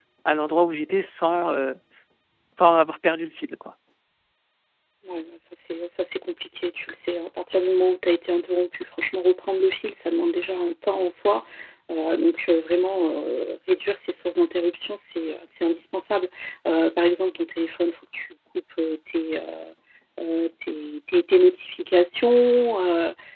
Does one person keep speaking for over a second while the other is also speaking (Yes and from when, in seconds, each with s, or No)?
No